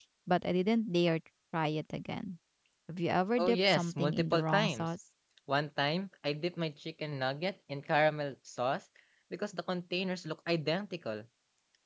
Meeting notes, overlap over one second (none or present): present